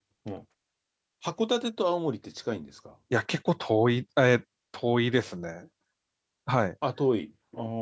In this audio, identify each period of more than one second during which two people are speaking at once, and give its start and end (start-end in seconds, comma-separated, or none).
none